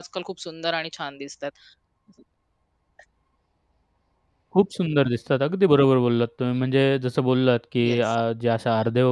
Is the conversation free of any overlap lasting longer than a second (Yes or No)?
Yes